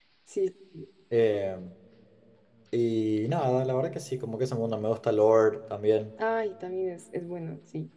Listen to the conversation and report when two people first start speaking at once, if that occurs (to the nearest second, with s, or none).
none